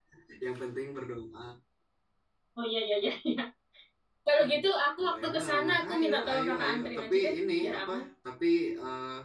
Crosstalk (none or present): present